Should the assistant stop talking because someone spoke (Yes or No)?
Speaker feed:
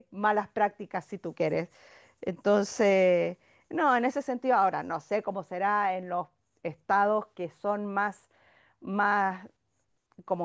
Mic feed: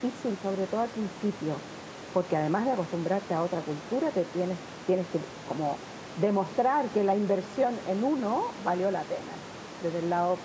Yes